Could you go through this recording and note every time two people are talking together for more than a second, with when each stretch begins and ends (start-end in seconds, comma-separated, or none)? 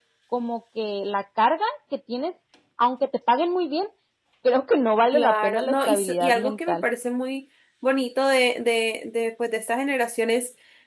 5.1-6.8